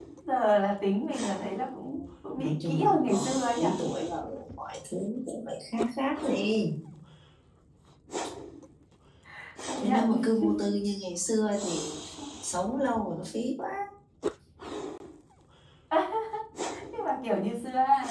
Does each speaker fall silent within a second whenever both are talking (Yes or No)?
No